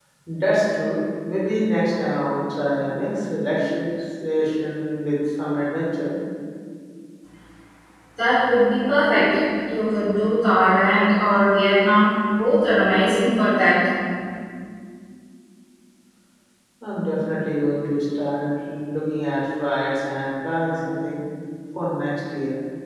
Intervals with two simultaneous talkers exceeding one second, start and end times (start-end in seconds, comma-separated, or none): none